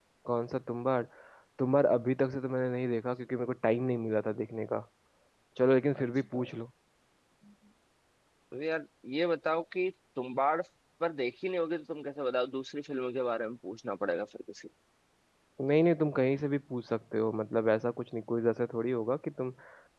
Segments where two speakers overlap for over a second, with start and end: none

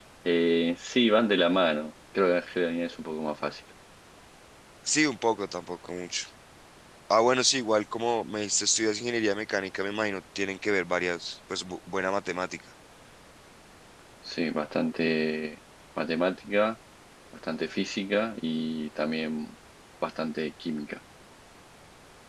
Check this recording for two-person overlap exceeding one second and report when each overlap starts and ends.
none

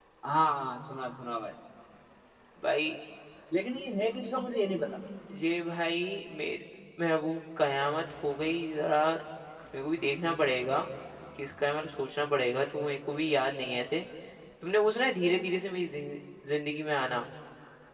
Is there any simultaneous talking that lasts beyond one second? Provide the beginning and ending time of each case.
none

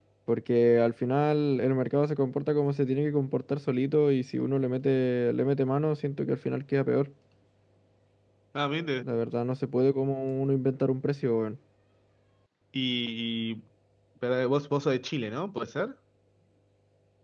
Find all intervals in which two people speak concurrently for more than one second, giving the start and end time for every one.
none

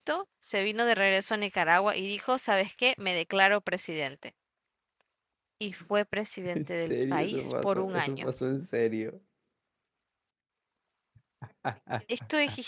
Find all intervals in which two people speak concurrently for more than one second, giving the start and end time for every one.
6.5-8.3

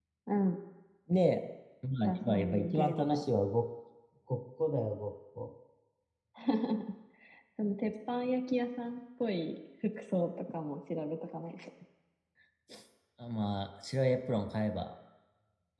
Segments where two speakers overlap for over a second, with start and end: 2.0-3.2

